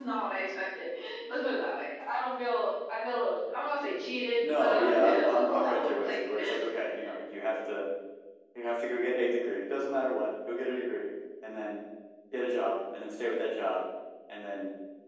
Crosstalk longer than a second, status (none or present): present